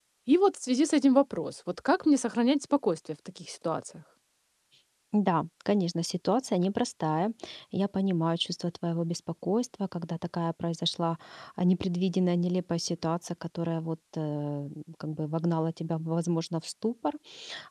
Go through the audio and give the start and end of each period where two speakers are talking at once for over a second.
none

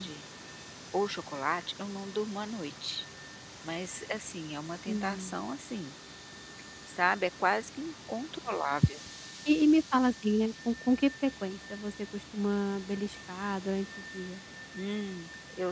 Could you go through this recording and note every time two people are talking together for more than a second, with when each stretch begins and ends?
none

